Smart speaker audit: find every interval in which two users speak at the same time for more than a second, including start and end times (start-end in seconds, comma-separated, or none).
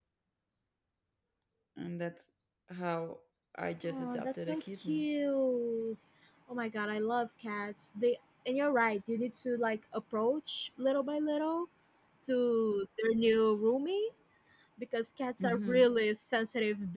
3.9-5.0